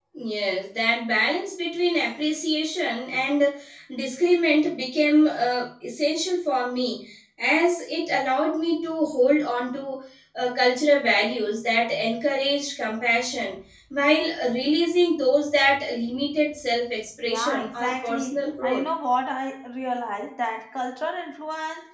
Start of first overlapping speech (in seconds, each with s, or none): 17.2 s